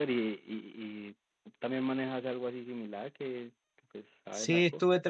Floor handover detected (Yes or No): Yes